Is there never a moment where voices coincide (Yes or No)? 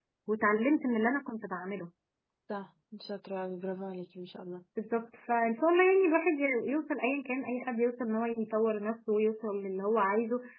Yes